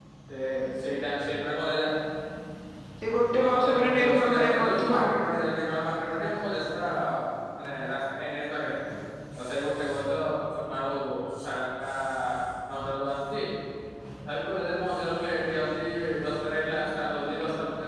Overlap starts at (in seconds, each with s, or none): 3.4 s